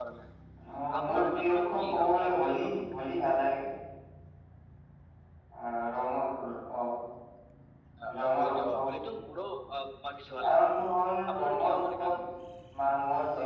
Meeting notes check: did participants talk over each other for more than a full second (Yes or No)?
Yes